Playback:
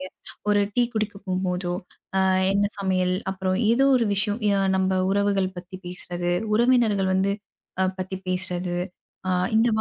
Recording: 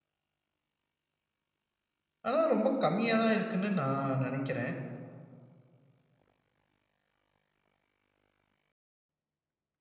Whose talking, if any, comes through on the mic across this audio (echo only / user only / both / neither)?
user only